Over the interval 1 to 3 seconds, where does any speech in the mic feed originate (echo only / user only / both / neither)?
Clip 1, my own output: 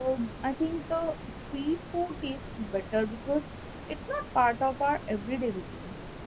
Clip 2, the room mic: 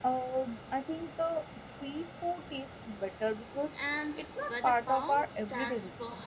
echo only